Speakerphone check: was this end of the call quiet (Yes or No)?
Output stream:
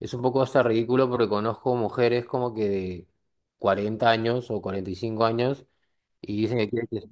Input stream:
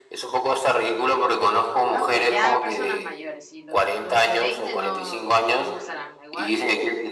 No